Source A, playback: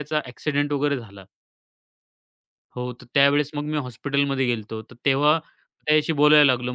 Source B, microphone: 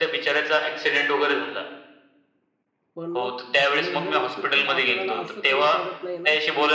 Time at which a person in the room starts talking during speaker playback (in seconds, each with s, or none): 2.9 s